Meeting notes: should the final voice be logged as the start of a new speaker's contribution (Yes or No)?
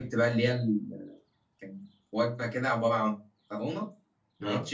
No